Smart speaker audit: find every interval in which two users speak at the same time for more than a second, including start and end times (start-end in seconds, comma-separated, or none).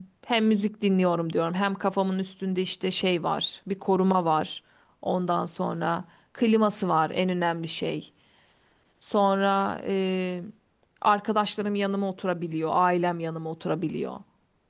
none